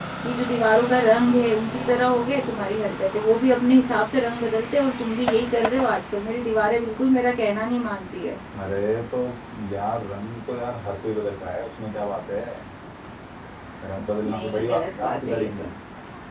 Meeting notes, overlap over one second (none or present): present